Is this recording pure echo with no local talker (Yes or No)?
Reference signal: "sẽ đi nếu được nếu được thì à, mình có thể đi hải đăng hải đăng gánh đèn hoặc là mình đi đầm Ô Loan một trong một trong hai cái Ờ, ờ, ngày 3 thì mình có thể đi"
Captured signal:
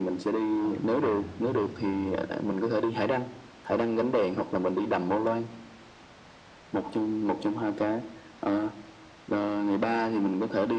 No